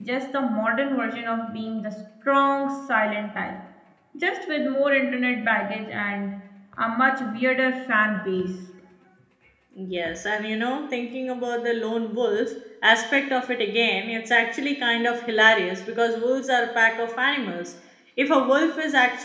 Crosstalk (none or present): none